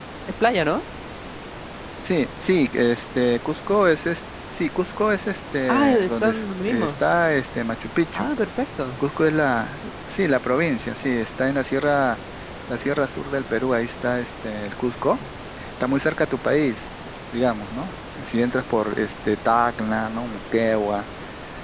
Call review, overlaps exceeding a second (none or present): present